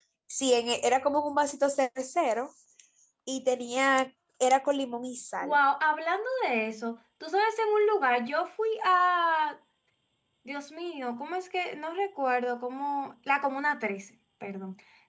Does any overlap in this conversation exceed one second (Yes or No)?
No